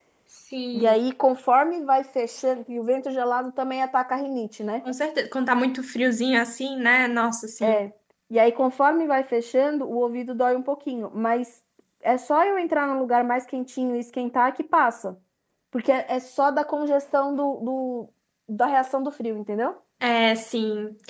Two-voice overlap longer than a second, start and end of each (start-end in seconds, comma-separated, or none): none